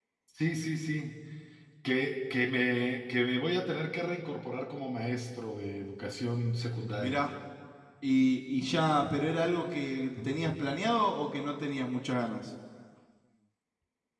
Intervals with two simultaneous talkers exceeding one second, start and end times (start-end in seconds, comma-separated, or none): none